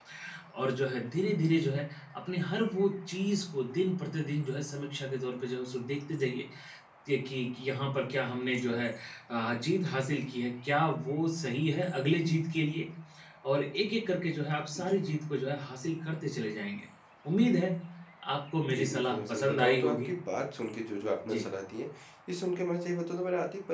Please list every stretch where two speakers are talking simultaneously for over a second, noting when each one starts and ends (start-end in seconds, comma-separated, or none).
18.7-20.1